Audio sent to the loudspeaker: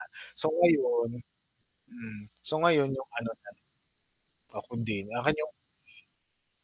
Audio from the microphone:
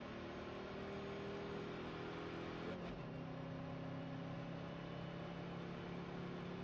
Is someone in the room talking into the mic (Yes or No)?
No